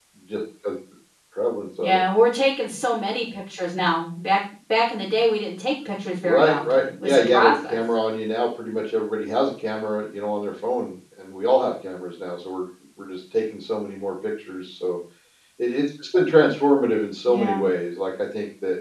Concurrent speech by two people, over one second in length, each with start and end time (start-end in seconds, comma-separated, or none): 6.2-7.8